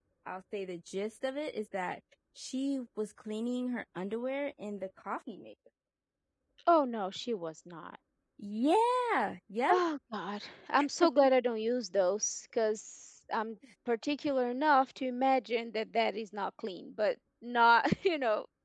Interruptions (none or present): none